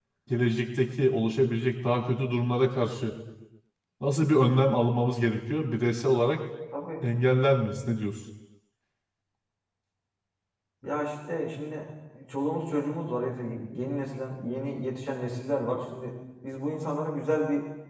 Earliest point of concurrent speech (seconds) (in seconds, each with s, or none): none